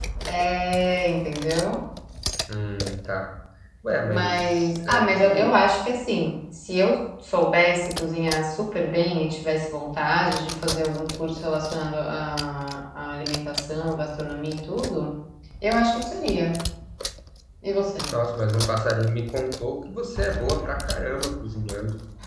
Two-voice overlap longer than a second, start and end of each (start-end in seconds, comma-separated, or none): 4.1-5.5